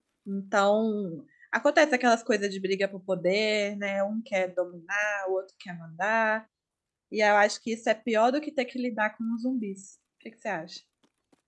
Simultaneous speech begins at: none

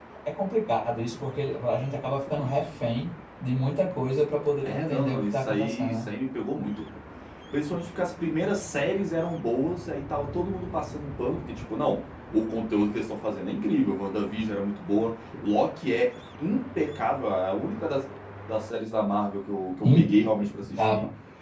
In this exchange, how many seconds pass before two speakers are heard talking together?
5 s

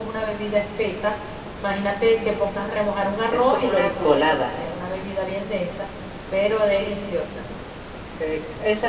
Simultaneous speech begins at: 3 s

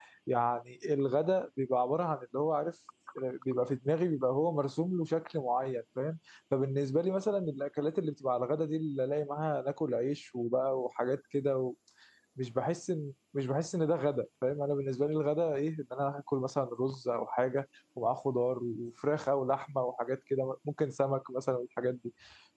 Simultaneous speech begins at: none

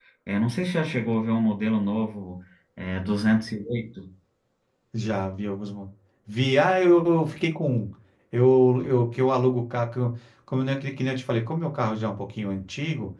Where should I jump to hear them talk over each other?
none

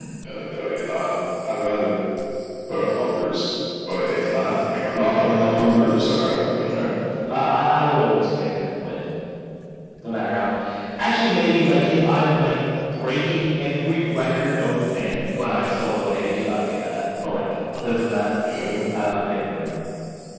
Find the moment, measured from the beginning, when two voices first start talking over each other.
none

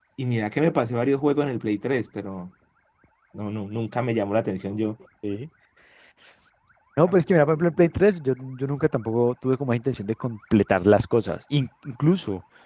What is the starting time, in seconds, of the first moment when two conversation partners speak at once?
none

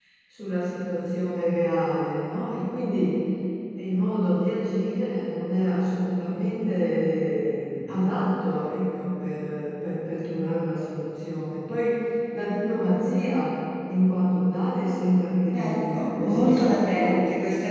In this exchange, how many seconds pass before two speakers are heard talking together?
16 s

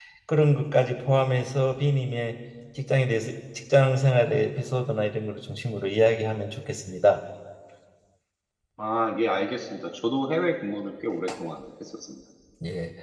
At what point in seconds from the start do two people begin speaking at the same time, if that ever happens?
none

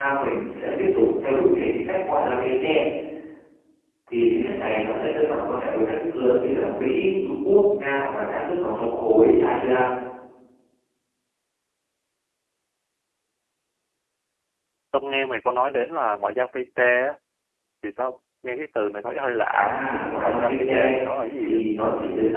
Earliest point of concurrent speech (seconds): 20 s

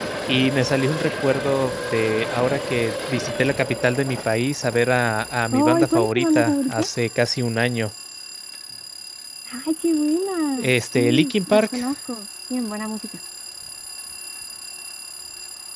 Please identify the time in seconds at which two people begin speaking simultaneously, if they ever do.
6 s

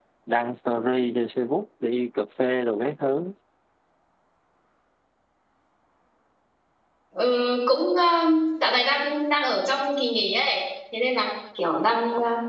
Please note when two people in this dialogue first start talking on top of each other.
none

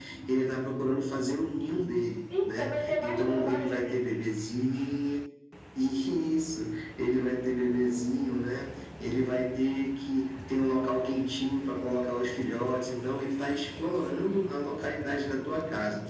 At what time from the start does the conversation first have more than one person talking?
2 s

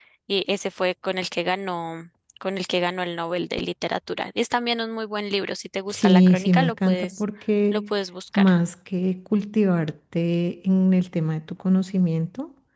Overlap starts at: 6 s

